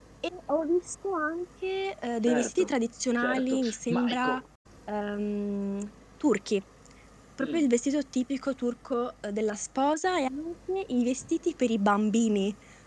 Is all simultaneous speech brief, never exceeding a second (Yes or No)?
No